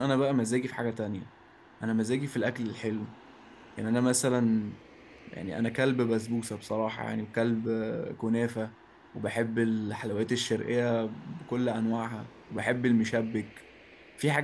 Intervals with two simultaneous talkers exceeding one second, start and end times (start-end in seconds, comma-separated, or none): none